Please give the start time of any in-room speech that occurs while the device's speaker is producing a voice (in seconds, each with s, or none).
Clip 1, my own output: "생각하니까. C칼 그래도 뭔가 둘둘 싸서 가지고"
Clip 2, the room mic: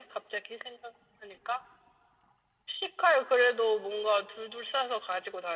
none